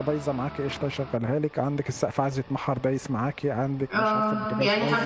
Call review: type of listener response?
taking over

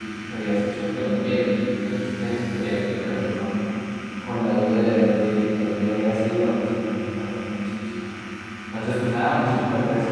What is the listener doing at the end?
listening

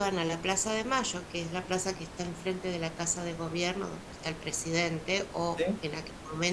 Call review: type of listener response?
listening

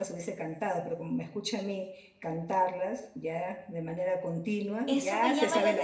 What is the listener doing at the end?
taking over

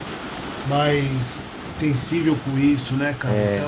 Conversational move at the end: taking over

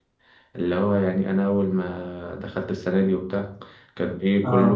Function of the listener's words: listening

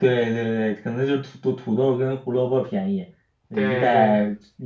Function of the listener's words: listening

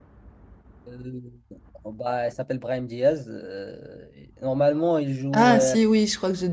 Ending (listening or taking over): taking over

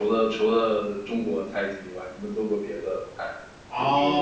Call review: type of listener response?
taking over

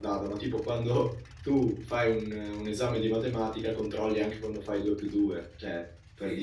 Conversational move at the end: taking over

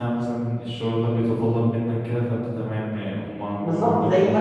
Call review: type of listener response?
taking over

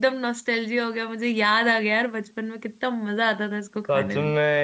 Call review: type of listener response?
taking over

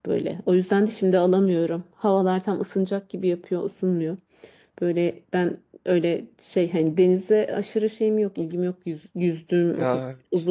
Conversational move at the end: listening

